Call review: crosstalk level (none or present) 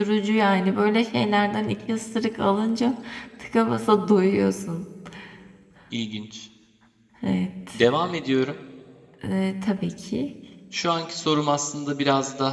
none